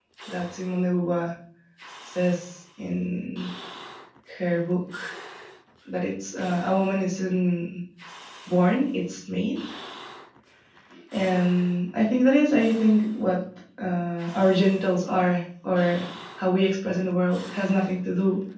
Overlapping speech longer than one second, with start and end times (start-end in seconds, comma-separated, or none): none